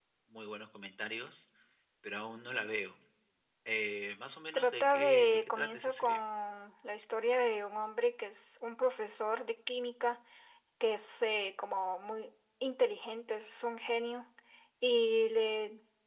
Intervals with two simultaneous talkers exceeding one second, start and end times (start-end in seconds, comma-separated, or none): 4.5-6.2